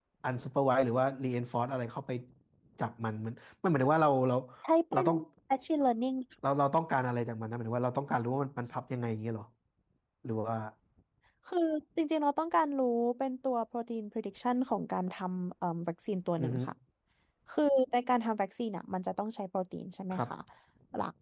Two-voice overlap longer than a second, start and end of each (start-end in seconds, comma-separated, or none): none